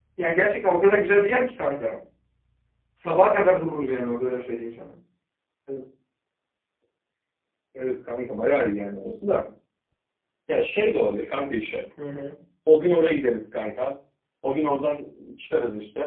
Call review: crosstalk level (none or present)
none